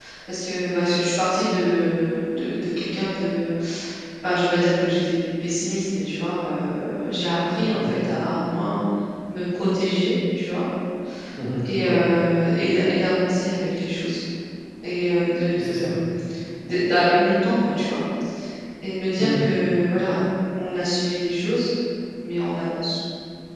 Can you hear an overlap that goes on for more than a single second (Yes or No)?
No